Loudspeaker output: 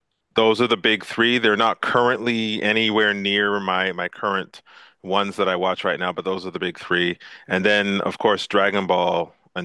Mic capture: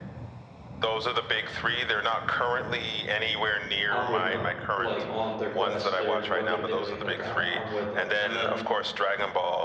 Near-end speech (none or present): present